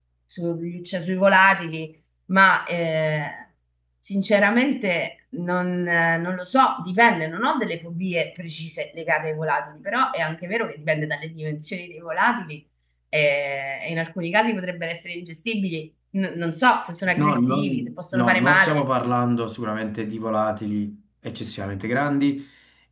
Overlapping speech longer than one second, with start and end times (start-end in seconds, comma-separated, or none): 17.1-18.8